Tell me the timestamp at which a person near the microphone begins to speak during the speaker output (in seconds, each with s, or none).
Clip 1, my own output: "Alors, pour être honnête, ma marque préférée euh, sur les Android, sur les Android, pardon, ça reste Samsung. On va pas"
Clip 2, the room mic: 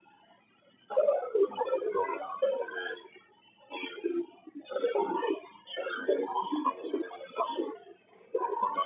none